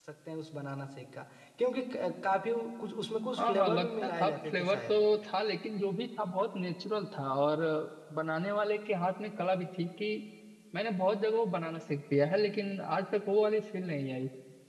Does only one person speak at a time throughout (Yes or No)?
No